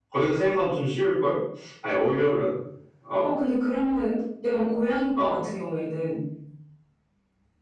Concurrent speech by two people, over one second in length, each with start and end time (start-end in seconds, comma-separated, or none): none